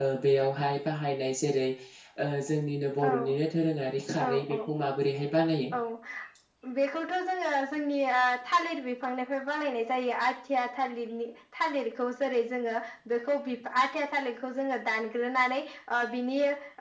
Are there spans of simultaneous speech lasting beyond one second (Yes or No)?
No